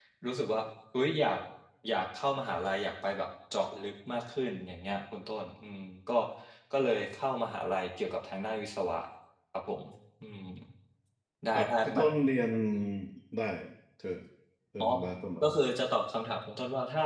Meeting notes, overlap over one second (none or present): none